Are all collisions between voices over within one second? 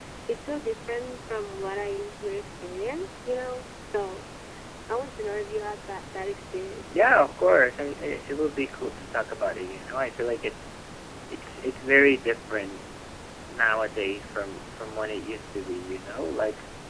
Yes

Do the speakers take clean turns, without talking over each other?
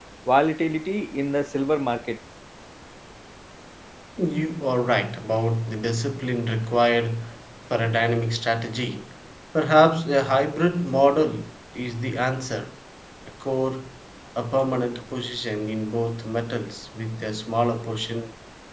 Yes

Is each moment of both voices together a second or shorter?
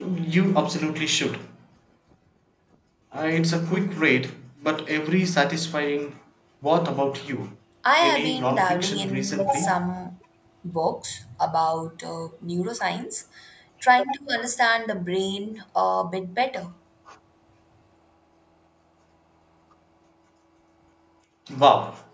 No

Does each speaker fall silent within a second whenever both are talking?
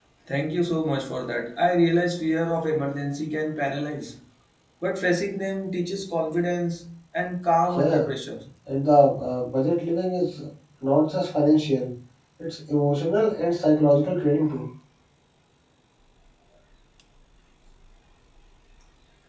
Yes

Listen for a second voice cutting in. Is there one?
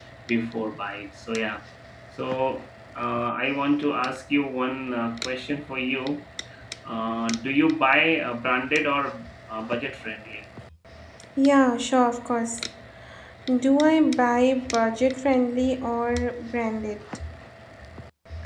No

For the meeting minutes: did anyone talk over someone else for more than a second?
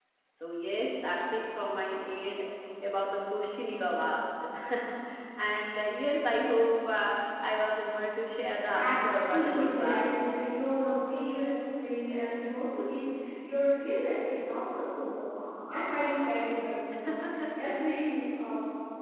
Yes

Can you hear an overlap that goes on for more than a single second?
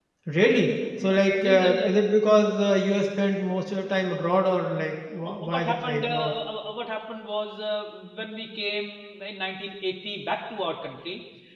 Yes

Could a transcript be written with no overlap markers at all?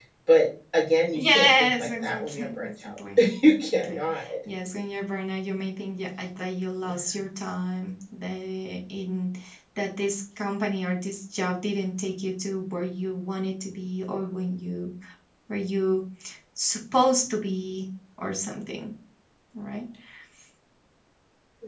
No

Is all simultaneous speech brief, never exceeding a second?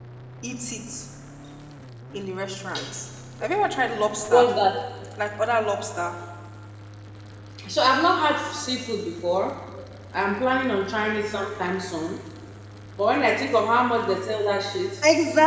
Yes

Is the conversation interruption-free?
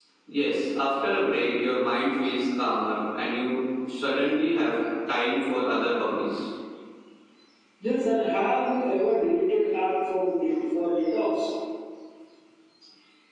Yes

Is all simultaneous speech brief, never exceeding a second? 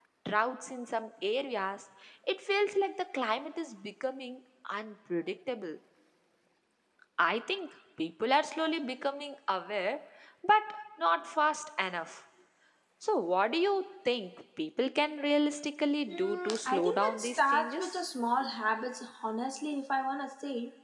No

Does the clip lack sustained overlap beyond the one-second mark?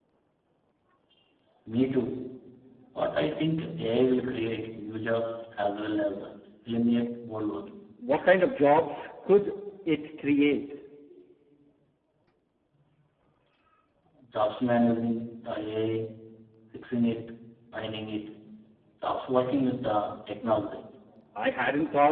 Yes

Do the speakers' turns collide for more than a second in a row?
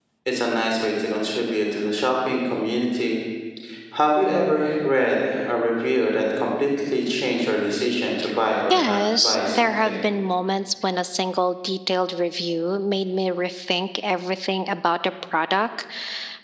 Yes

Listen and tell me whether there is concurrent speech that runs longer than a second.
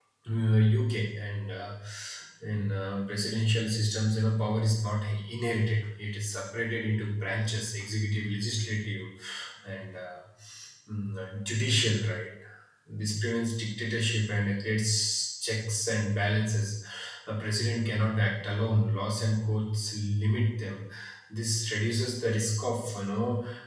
No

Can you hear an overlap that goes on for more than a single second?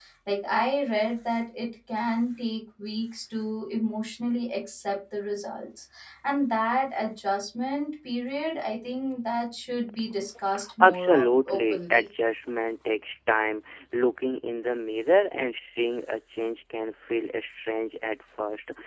Yes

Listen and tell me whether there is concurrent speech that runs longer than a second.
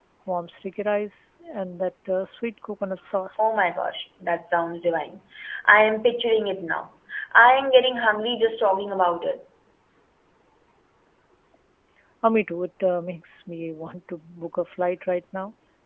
No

